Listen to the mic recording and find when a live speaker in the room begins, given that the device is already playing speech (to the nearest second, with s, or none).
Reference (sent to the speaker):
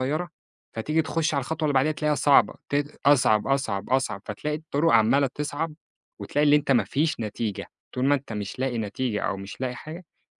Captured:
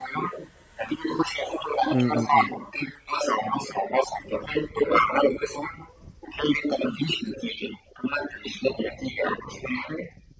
2 s